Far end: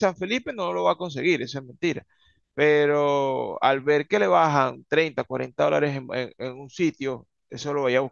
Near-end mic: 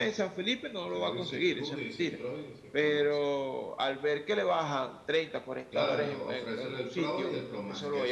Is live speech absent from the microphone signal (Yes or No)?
No